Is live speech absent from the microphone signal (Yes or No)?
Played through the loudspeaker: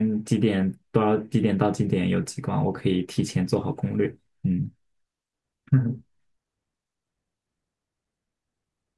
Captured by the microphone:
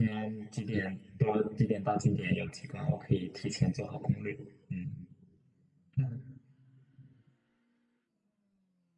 Yes